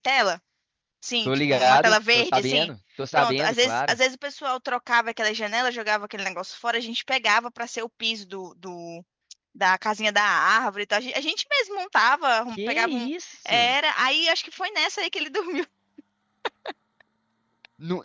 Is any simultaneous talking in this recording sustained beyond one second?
Yes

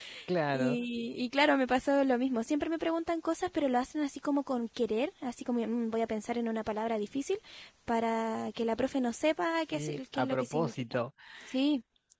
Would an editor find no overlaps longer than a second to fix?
No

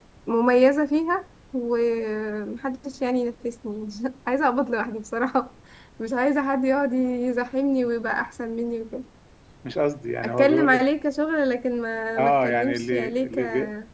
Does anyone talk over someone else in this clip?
Yes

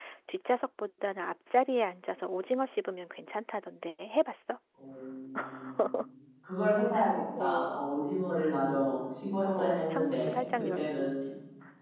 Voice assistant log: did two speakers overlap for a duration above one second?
Yes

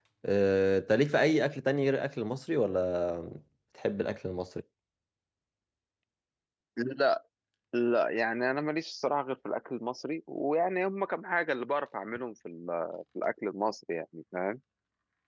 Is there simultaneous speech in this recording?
No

